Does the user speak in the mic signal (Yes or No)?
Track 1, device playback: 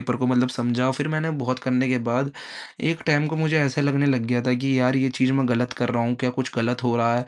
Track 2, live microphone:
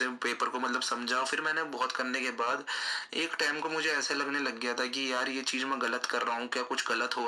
No